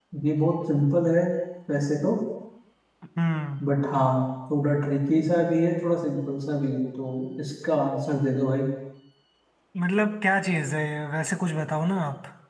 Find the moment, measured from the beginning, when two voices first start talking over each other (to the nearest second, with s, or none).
none